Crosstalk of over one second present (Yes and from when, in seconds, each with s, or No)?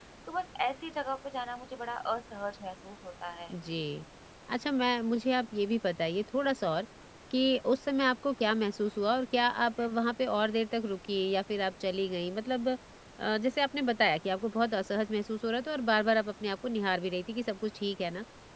No